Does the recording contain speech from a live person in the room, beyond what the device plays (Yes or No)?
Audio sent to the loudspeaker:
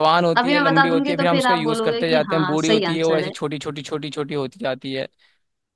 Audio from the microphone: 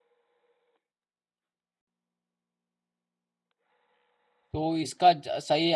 Yes